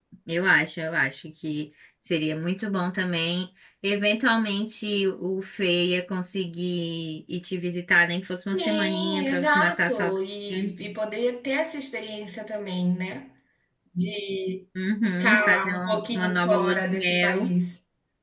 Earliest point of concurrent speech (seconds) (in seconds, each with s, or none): 8.5 s